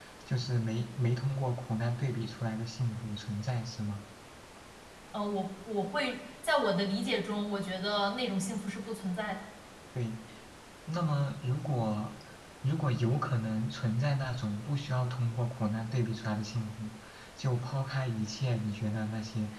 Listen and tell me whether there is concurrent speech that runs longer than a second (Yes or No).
No